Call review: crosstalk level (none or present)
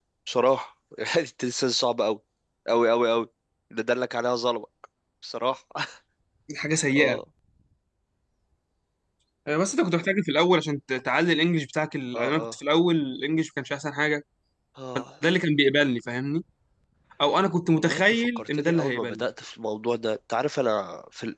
present